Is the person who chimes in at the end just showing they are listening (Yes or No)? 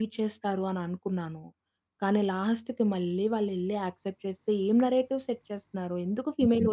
Yes